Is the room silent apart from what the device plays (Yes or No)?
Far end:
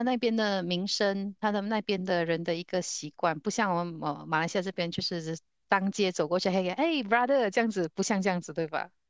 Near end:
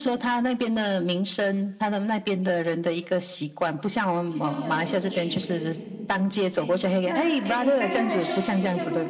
No